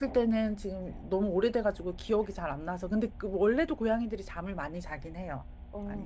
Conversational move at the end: taking over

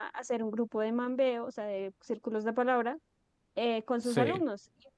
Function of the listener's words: listening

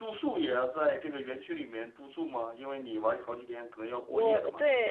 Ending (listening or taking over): taking over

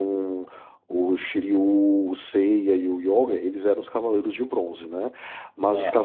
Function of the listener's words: listening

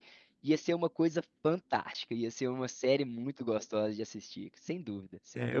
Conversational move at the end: taking over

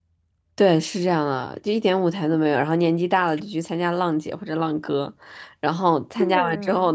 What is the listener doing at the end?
listening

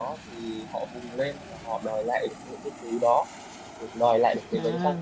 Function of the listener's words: listening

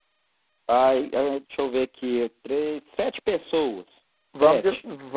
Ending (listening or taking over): taking over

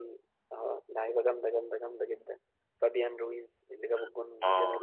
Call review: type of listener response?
taking over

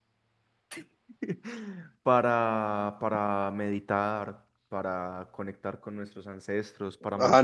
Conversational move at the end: taking over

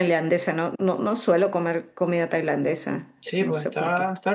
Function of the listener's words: taking over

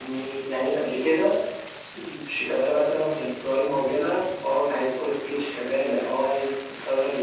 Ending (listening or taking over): listening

